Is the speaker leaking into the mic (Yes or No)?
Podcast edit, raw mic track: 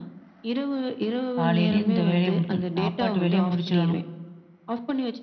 Yes